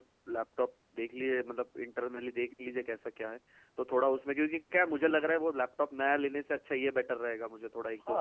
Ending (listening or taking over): taking over